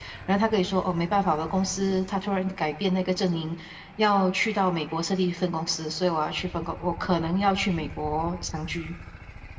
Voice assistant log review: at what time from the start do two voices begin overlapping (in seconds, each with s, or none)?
none